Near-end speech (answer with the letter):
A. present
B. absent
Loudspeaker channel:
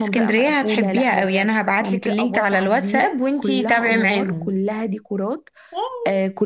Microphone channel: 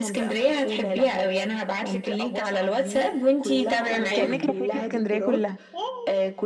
A